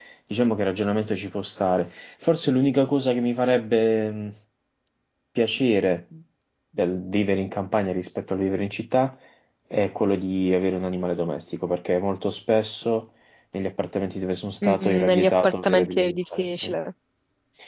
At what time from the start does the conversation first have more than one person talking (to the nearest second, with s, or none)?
15 s